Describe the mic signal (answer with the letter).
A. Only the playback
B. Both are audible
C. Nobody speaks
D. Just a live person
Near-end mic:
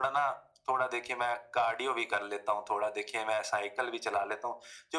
A